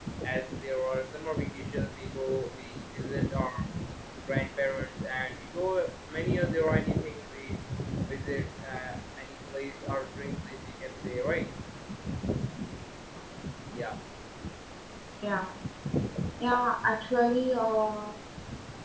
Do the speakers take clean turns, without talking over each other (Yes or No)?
Yes